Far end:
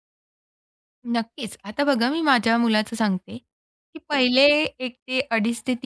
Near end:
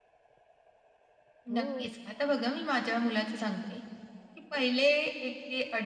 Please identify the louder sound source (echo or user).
echo